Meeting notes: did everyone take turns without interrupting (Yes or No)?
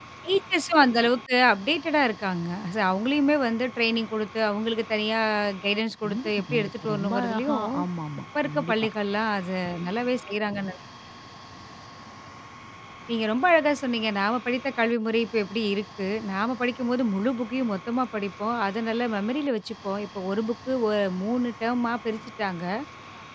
No